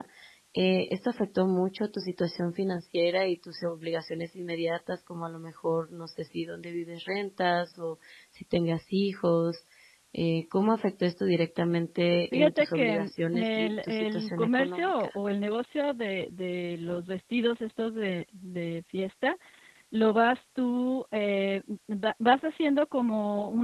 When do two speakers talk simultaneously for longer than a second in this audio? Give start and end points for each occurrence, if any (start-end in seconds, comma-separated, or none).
12.3-15.2